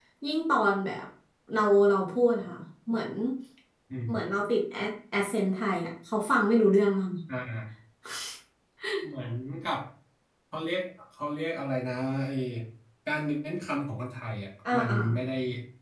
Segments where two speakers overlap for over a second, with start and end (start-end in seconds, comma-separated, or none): none